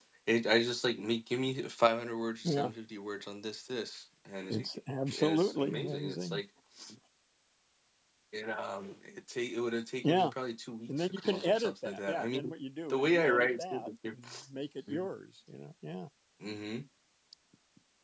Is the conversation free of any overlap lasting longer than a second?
No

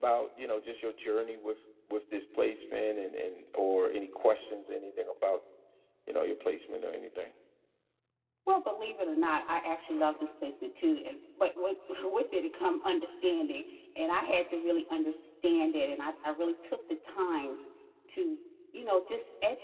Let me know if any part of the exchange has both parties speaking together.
No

